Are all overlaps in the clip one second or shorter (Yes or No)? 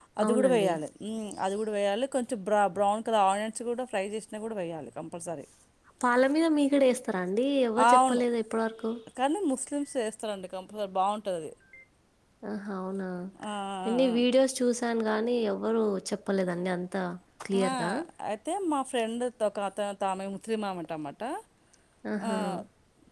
Yes